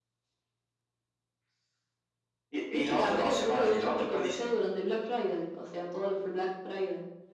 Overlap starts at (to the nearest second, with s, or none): 3 s